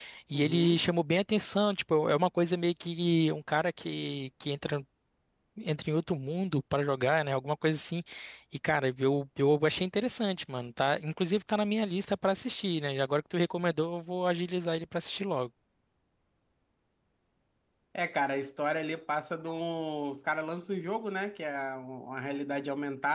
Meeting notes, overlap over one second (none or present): none